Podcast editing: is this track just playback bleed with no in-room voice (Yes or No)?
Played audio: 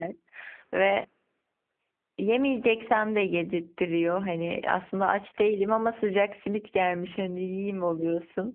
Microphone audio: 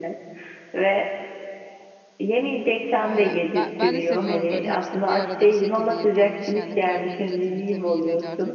No